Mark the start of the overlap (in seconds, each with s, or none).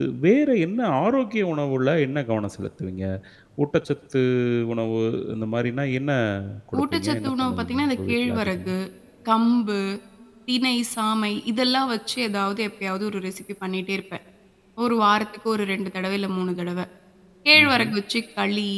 6.8 s